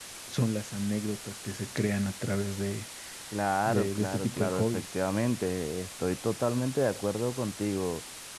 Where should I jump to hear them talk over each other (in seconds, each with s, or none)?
3.6 s